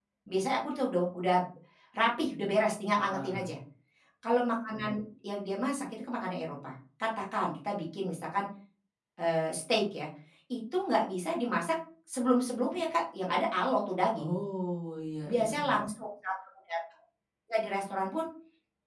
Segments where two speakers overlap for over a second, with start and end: none

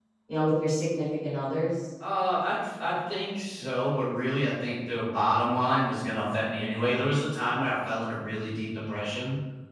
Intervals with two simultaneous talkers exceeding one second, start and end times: none

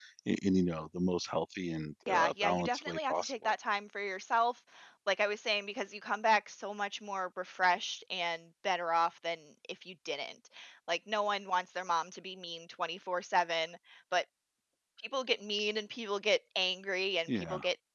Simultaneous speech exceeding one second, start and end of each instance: 2.1-3.5

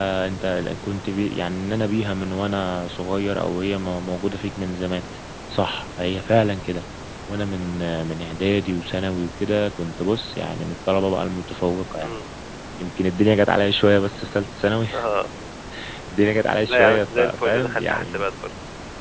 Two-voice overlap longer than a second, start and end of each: 16.7-18.2

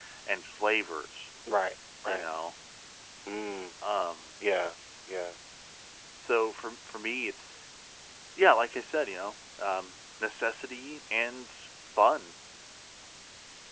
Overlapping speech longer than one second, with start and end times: none

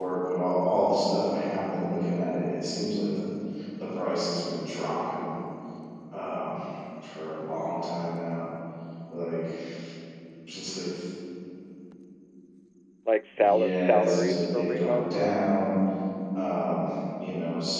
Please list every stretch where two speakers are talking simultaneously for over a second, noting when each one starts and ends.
13.4-15.4

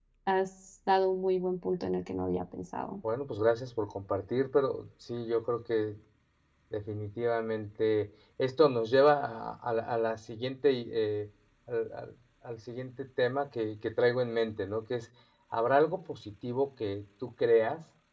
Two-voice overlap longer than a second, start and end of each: none

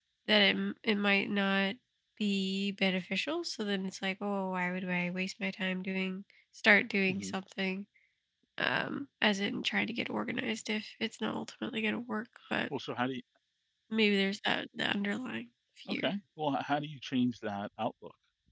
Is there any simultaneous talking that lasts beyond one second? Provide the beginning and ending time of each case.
none

